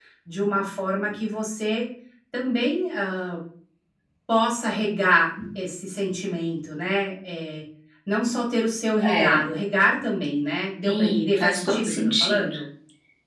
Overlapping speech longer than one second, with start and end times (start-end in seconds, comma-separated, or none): 10.8-12.6